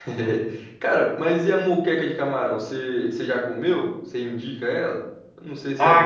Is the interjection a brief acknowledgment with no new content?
No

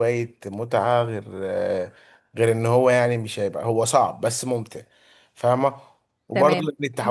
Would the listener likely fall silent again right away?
No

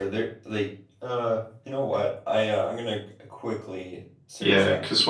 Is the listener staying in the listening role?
No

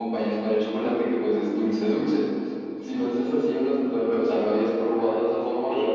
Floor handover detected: Yes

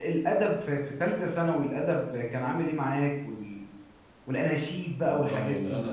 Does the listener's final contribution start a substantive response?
Yes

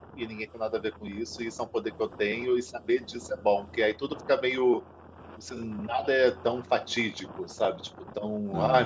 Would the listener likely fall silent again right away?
Yes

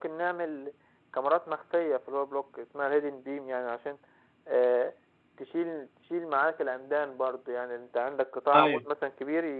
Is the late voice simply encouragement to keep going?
Yes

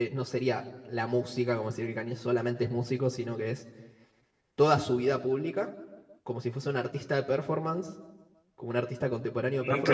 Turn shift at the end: Yes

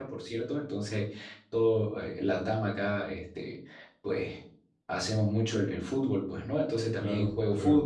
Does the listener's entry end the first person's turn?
No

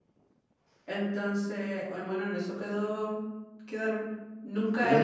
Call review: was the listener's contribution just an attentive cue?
No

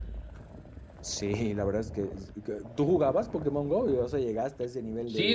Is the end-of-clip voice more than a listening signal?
Yes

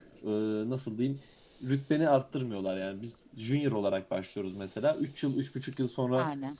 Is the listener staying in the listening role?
Yes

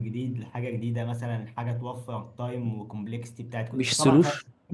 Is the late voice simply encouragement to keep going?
No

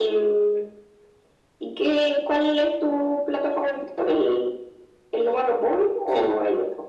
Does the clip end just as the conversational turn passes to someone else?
Yes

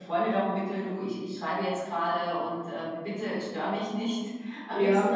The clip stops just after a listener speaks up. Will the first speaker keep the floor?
Yes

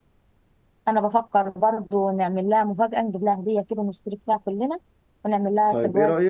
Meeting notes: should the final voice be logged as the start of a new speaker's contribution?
Yes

